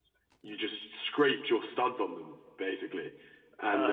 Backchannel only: Yes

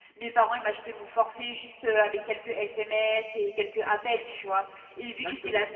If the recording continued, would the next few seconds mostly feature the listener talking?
No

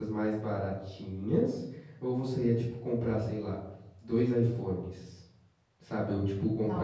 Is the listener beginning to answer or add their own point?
Yes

